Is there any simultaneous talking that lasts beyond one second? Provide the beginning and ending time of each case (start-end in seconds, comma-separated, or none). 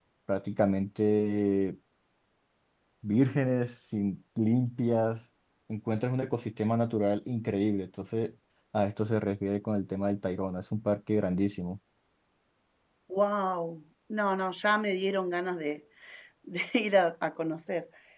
none